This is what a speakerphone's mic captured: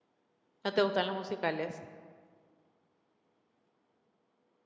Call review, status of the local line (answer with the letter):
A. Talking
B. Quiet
A